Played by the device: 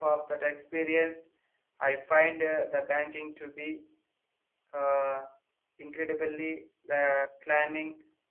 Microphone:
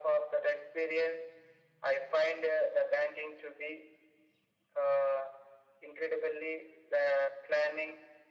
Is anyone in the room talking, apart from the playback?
No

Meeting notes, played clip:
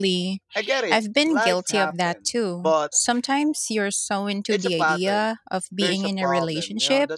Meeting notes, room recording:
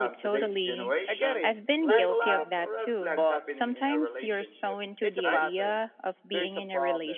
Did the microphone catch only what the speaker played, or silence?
No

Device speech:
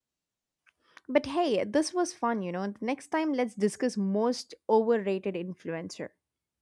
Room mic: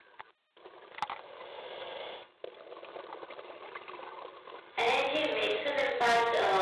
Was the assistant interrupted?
Yes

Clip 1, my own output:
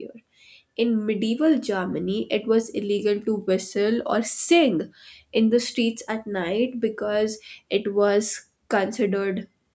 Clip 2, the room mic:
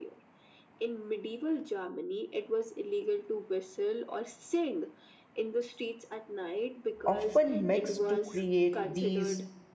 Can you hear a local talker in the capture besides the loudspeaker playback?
Yes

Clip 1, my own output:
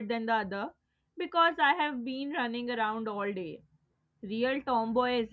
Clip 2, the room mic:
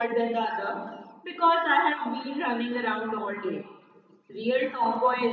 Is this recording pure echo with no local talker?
Yes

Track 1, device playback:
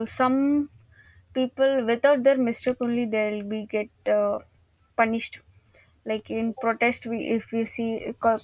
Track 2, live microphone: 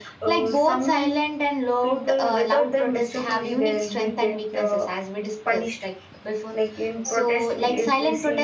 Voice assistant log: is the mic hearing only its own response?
No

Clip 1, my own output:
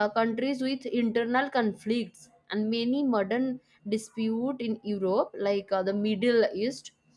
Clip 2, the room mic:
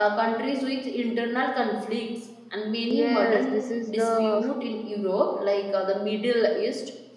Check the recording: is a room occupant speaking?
Yes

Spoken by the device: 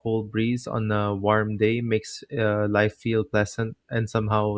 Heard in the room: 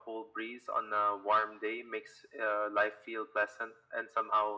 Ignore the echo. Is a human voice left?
No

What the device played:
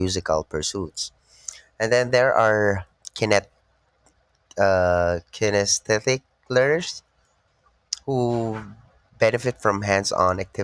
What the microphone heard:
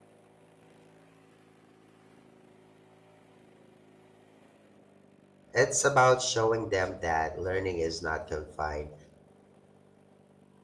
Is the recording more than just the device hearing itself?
Yes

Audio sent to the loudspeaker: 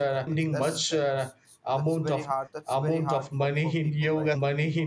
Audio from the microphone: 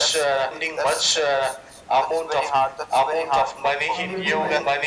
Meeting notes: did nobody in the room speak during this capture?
No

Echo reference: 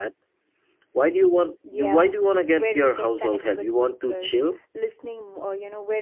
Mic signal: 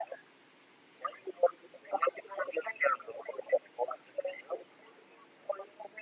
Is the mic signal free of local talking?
Yes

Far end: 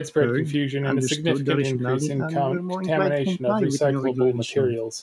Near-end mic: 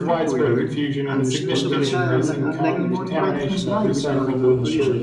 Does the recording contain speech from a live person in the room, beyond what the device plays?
Yes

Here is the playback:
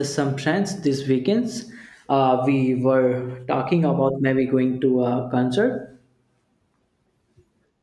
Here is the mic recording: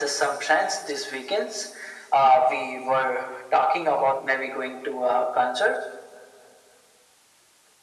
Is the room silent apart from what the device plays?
Yes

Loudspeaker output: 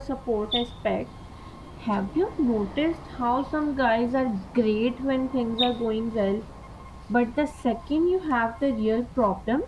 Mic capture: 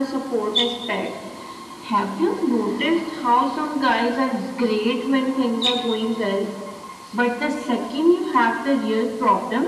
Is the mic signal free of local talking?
Yes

